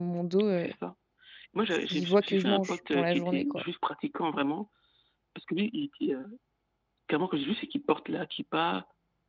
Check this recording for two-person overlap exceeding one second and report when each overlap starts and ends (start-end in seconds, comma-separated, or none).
1.9-3.6